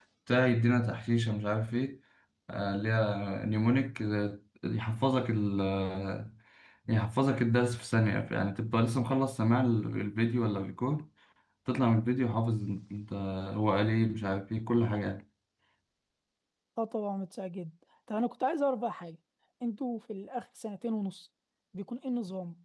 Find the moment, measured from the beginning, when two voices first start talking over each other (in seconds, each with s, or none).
none